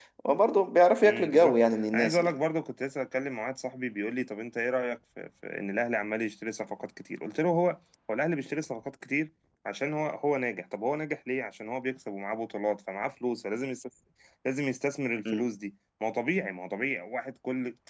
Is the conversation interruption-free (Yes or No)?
No